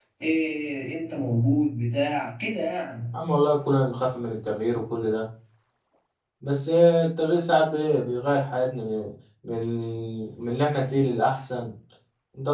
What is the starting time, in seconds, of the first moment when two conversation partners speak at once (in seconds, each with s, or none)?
none